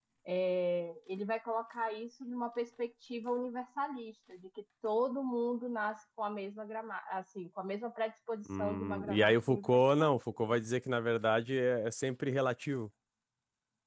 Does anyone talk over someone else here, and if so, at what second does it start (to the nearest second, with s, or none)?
8 s